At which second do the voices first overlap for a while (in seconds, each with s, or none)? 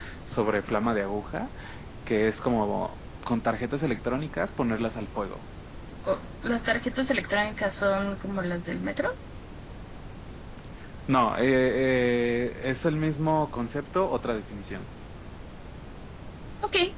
none